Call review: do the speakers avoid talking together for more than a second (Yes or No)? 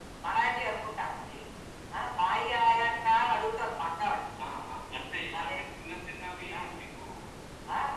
Yes